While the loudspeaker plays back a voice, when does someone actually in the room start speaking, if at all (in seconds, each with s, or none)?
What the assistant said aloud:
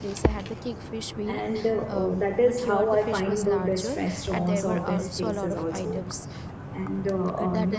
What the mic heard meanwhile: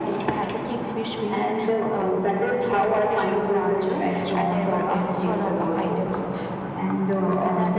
none